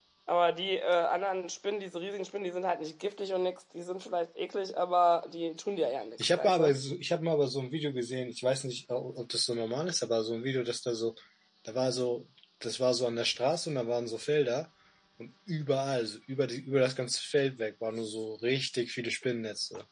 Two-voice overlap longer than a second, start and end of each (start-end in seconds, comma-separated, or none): none